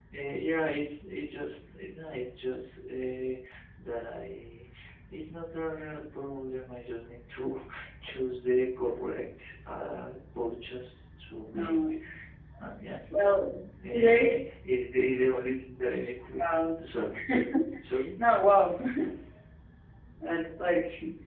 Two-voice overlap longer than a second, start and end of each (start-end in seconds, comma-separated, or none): none